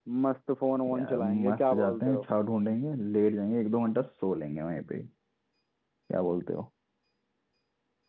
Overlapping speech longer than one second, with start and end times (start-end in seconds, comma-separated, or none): 1.0-2.2